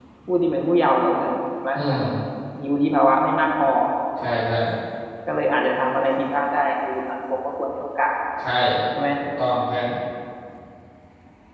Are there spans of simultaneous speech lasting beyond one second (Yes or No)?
No